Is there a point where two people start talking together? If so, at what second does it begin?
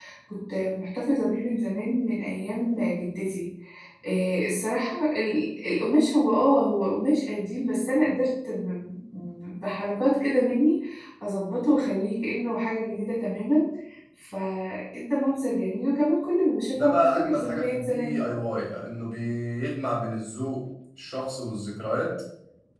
17 s

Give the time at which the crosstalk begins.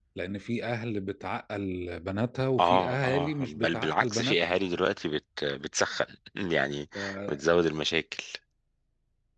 3 s

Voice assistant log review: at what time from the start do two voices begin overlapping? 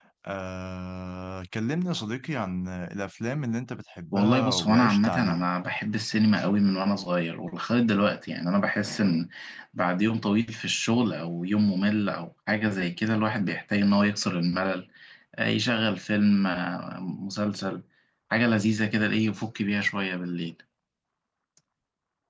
4 s

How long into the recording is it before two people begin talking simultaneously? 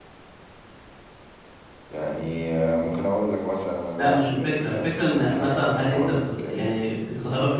4 s

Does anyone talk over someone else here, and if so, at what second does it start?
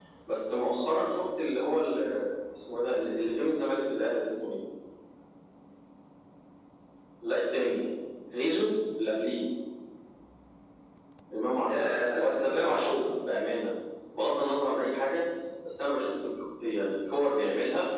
12 s

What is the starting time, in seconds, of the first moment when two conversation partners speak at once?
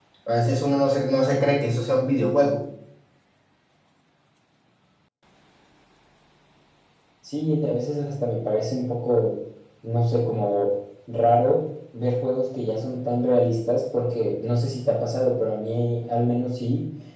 none

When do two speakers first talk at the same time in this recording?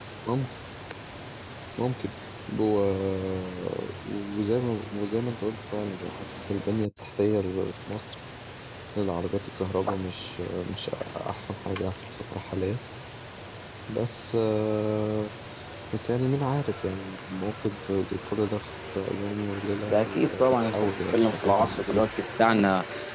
20 s

